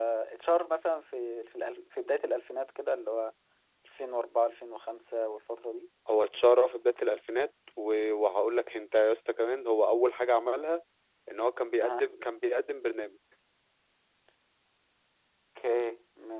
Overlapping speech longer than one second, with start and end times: none

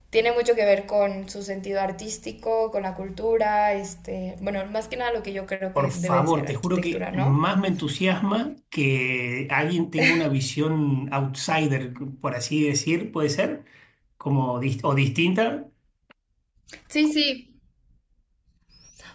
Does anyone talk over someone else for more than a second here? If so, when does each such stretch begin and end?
5.8-7.4

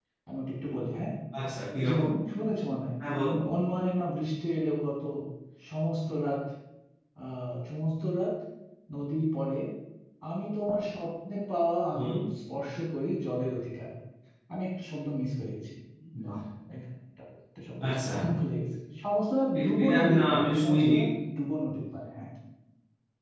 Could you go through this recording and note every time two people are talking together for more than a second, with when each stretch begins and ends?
19.6-20.9

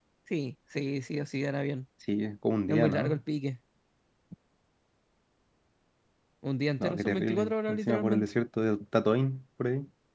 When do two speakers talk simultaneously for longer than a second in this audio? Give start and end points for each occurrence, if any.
6.8-8.3

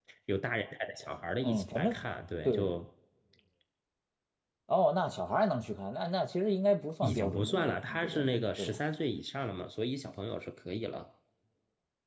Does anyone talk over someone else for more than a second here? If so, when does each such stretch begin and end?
7.0-8.8

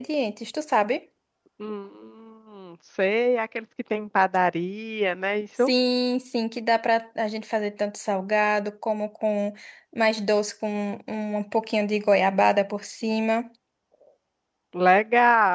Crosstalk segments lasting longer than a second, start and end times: none

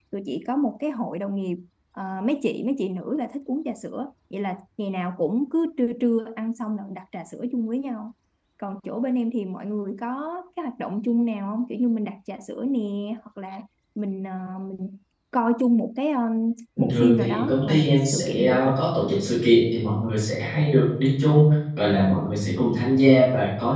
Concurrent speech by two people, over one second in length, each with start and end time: 16.8-18.7

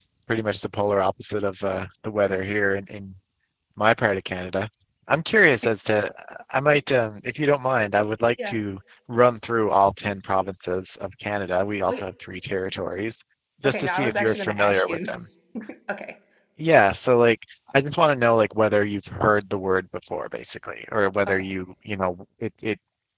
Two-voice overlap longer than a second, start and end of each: 13.6-15.2

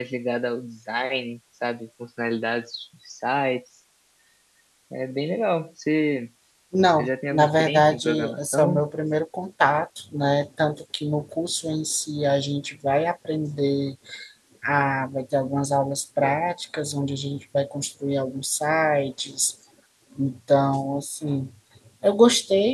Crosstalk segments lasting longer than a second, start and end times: 7.0-8.8

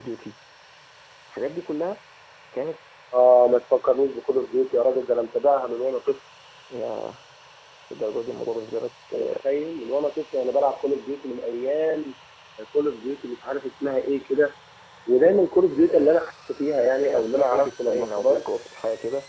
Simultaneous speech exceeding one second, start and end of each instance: 16.8-18.4

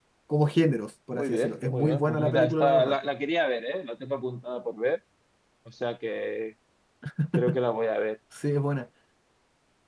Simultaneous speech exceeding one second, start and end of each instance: 1.1-3.0

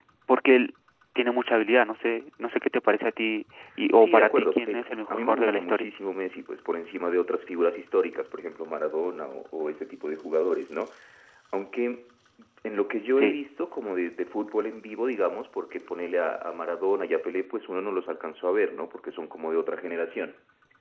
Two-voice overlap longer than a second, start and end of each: 4.0-5.9

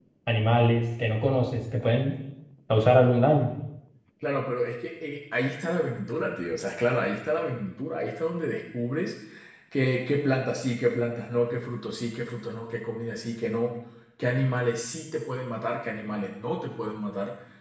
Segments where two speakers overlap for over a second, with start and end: none

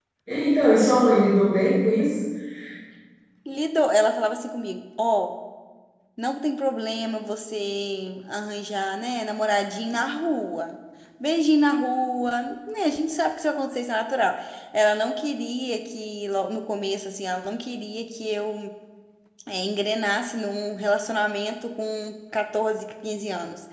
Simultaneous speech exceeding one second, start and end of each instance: none

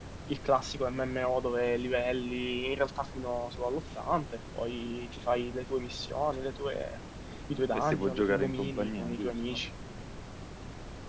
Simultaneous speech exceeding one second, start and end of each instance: 7.7-9.6

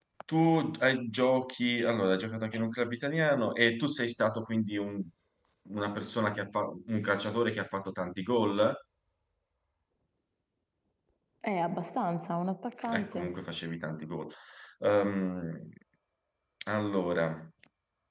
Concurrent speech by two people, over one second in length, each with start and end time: none

